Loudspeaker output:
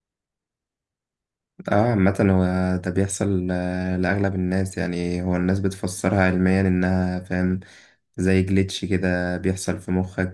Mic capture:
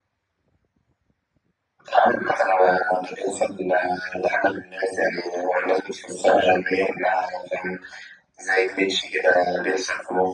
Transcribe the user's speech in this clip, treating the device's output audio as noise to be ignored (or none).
none